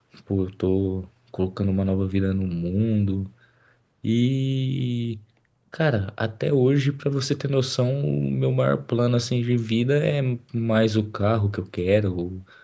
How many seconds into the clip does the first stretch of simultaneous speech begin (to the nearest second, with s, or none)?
none